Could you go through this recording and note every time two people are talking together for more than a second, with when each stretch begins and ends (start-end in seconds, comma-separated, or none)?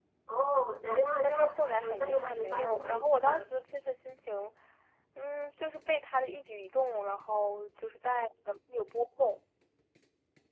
1.2-3.5